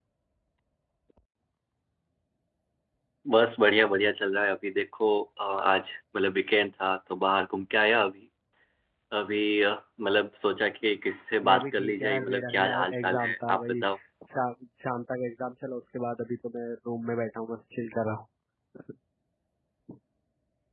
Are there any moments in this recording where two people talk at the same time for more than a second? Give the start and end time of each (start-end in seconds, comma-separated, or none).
11.4-13.8